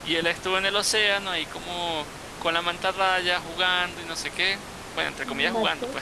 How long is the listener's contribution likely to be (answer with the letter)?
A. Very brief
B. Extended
A